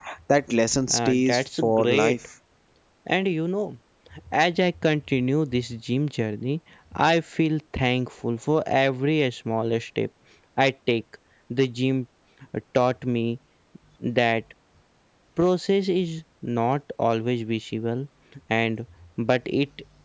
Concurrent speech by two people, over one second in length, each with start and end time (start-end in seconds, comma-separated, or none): 0.9-2.2